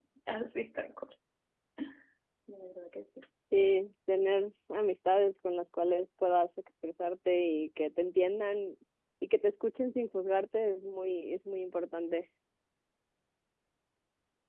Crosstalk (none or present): none